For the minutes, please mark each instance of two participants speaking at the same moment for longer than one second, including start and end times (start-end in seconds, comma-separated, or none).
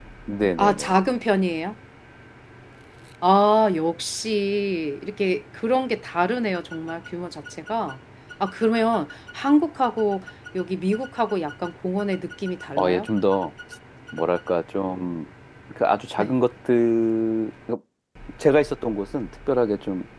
none